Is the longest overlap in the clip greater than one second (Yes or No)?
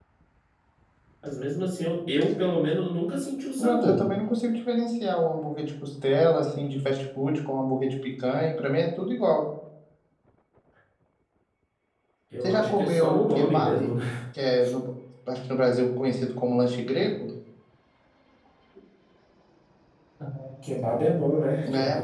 Yes